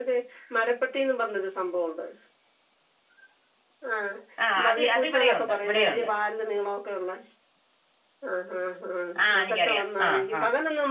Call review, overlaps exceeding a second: present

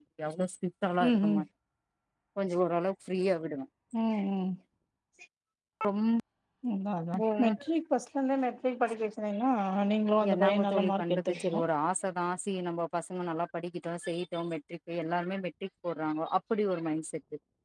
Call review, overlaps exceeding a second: present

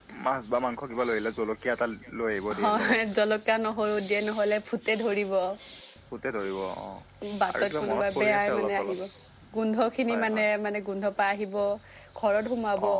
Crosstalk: present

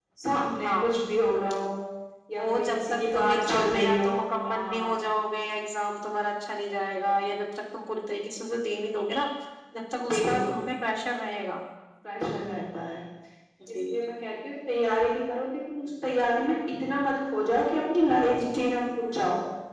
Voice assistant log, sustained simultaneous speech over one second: present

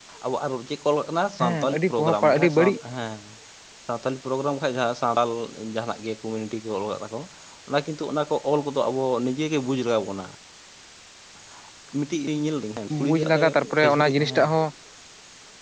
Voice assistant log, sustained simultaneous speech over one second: present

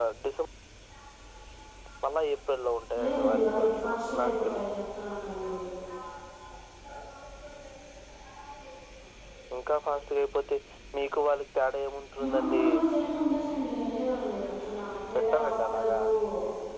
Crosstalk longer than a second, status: present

